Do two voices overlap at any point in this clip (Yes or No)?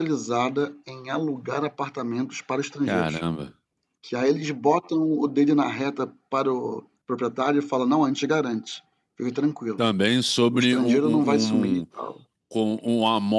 Yes